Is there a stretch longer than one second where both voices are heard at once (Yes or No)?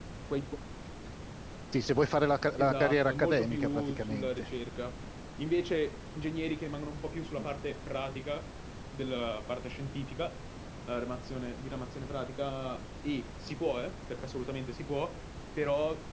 Yes